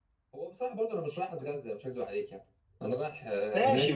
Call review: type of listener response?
taking over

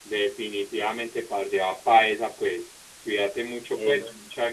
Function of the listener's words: listening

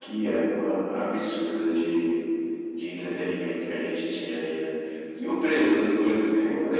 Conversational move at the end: listening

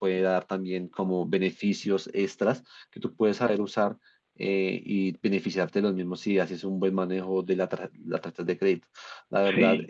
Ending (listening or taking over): listening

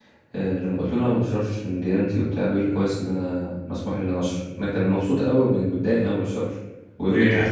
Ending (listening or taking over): listening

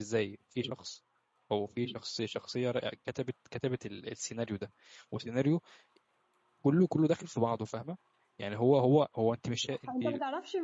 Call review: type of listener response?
taking over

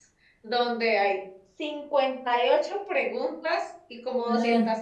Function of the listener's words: listening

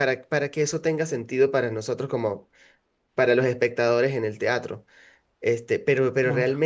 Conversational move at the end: listening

